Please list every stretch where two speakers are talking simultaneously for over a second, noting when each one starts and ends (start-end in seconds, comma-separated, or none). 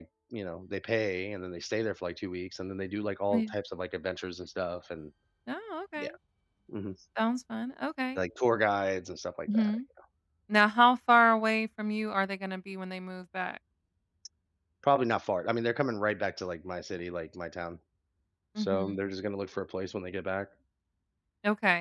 none